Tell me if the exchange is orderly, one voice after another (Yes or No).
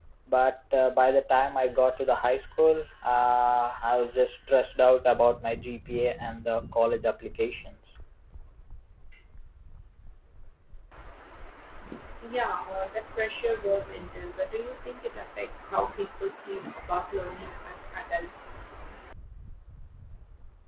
Yes